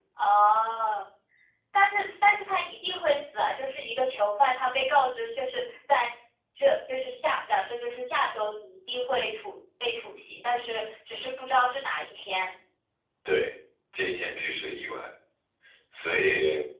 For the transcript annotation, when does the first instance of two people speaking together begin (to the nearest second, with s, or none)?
none